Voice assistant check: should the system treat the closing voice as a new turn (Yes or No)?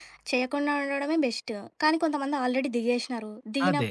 No